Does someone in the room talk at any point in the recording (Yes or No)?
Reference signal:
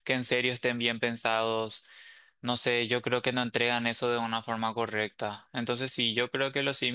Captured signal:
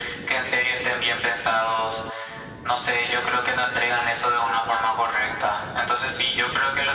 No